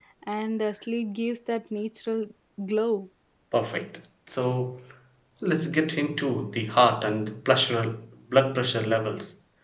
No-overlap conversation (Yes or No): Yes